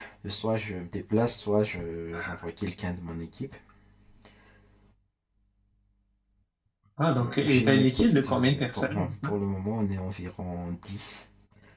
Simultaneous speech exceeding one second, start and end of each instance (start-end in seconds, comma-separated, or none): 7.2-9.3